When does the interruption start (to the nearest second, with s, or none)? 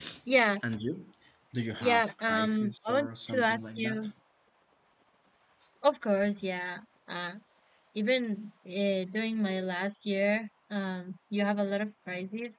2 s